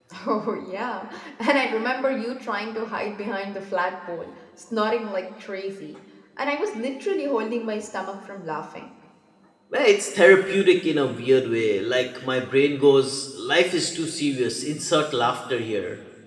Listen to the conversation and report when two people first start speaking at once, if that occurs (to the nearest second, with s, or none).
none